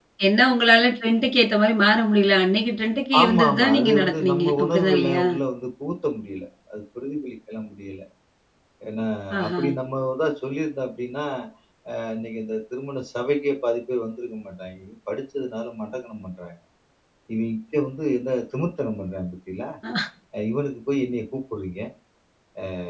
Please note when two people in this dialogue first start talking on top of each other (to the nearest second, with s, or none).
3 s